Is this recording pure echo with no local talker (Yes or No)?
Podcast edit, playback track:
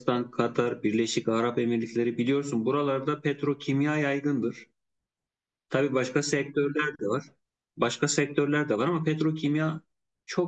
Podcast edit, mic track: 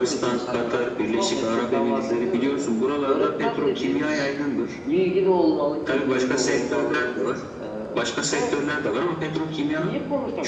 No